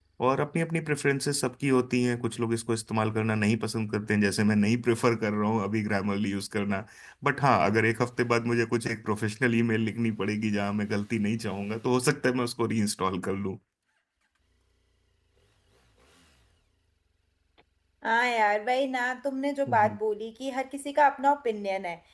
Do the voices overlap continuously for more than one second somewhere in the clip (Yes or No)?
No